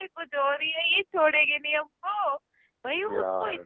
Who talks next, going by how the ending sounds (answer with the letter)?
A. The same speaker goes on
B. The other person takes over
A